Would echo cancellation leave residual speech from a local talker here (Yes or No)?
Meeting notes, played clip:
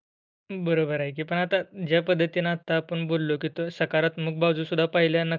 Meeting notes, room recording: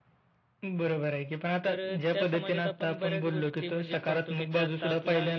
Yes